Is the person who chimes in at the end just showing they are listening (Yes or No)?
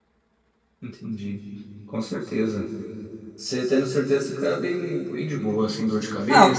No